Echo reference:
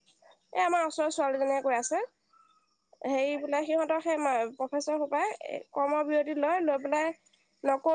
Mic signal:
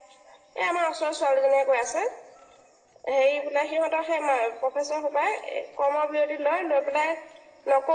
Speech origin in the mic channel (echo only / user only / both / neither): echo only